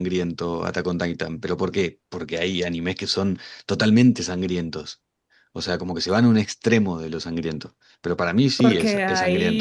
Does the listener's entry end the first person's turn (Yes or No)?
Yes